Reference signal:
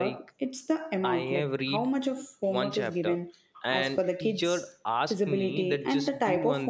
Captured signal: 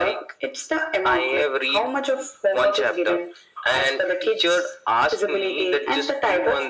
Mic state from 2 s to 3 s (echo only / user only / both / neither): echo only